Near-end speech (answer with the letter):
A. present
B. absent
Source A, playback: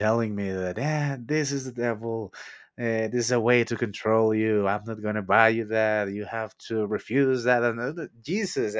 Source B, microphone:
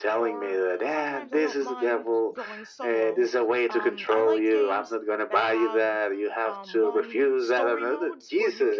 A